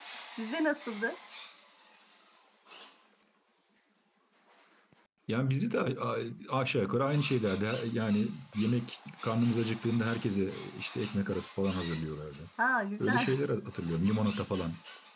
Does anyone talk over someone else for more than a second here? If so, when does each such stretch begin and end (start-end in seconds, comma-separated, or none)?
none